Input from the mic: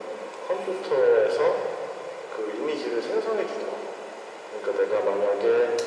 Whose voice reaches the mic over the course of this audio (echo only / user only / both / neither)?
echo only